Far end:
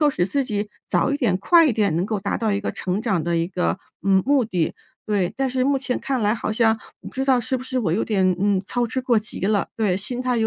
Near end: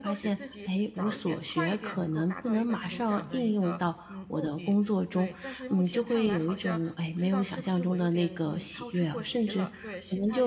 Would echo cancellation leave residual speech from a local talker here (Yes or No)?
Yes